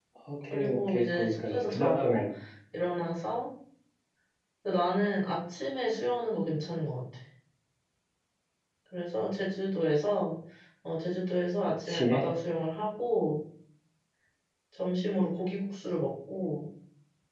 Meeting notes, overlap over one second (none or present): present